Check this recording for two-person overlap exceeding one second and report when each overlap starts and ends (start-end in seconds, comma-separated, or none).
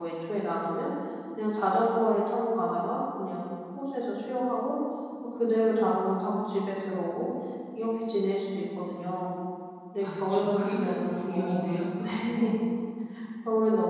10.0-11.7